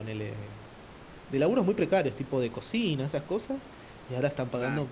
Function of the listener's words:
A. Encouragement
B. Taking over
A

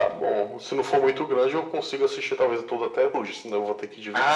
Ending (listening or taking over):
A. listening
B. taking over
B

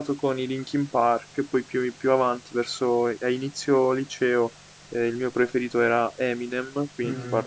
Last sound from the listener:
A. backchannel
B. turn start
B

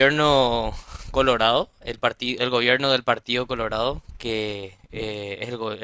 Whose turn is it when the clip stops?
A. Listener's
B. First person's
B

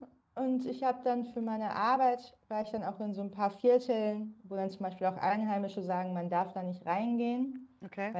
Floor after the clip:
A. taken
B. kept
B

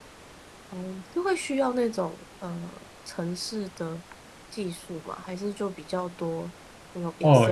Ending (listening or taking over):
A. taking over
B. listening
A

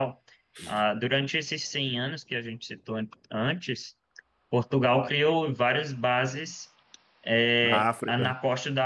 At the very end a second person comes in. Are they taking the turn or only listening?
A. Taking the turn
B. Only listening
B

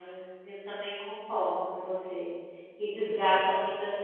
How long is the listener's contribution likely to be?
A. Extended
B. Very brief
B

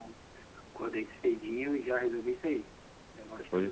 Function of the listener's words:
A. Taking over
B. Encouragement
A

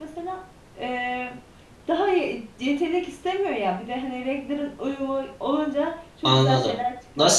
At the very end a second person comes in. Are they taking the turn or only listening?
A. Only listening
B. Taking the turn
B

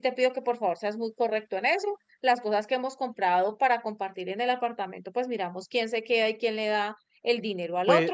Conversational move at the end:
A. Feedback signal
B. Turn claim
B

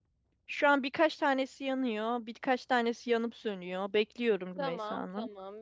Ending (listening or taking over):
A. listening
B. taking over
B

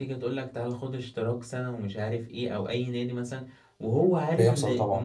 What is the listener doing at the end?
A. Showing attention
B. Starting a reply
A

